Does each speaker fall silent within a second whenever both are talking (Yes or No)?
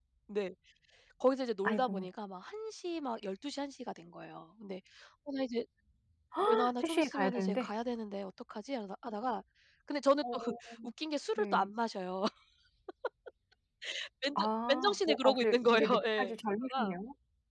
No